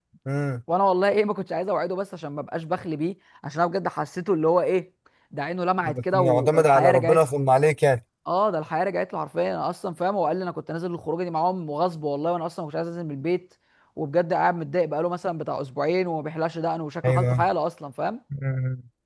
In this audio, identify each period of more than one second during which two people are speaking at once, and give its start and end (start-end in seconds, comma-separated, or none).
5.8-7.2